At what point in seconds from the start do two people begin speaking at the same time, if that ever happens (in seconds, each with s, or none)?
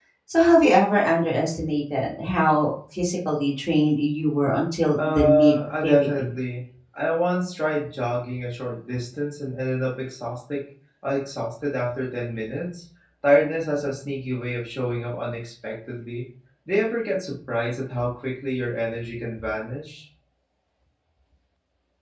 5.0 s